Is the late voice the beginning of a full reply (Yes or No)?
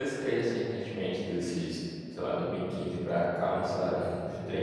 Yes